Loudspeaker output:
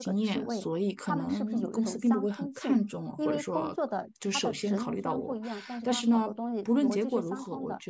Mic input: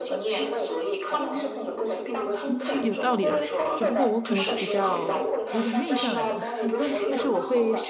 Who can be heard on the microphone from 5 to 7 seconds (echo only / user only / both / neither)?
both